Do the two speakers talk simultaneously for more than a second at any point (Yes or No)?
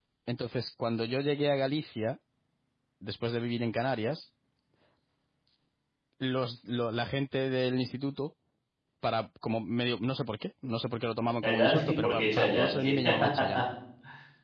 Yes